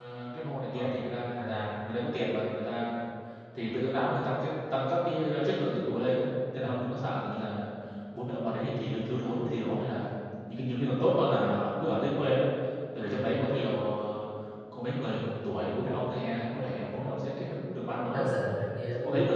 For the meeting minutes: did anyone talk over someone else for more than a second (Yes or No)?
No